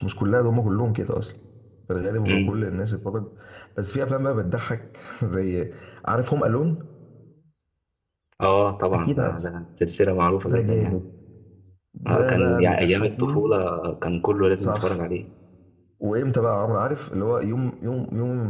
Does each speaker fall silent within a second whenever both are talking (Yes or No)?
No